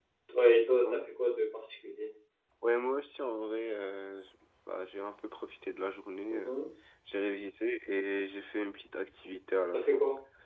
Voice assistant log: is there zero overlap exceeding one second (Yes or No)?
Yes